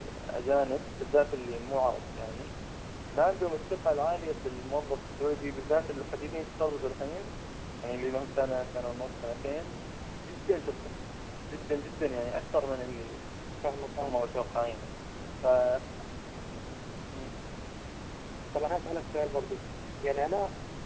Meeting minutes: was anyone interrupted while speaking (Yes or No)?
No